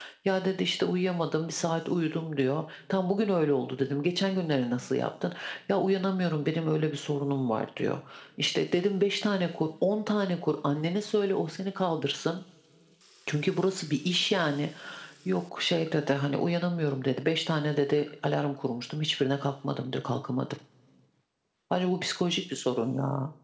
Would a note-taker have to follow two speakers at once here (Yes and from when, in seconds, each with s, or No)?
No